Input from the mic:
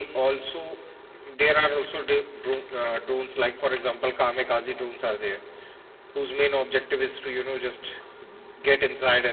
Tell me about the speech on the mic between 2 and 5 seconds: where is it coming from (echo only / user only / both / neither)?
echo only